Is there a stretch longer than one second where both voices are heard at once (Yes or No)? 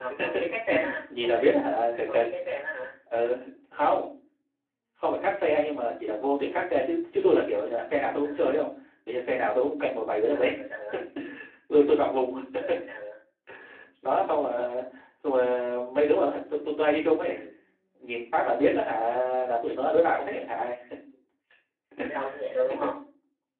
No